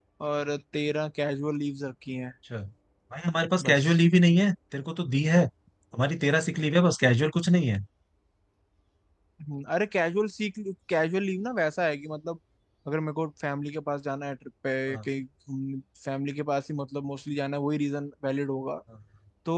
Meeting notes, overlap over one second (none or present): none